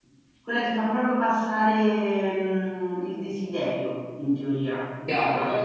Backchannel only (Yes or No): No